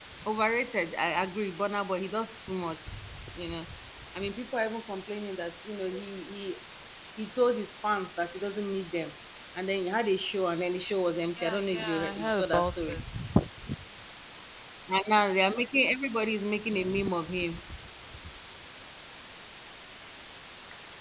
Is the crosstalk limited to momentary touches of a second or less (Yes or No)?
No